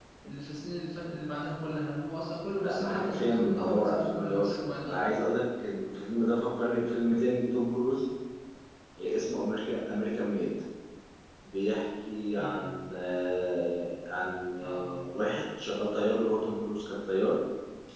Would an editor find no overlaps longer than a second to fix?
No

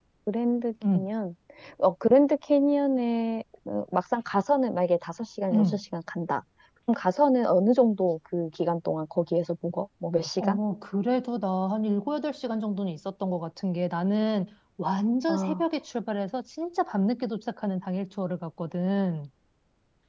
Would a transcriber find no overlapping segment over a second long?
Yes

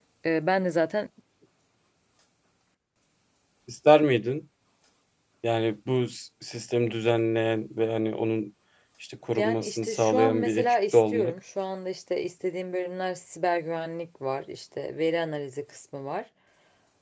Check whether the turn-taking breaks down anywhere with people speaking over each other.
Yes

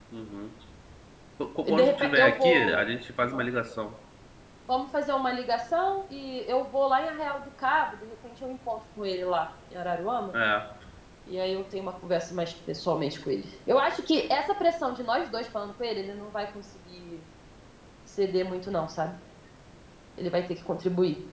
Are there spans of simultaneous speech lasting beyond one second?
Yes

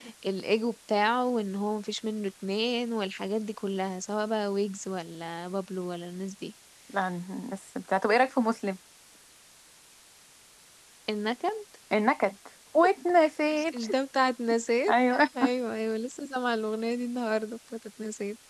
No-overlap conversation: Yes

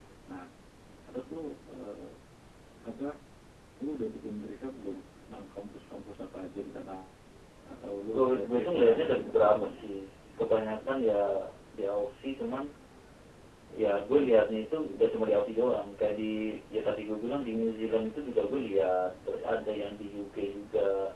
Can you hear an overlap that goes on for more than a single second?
Yes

